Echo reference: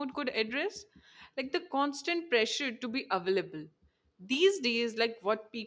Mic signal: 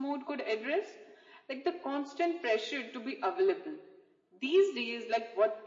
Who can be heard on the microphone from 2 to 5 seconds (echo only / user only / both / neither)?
echo only